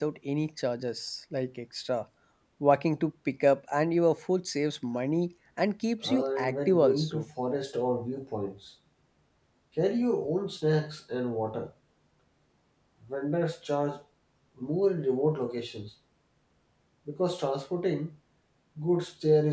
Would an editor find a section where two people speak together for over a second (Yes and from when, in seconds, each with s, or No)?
Yes, from 6.0 s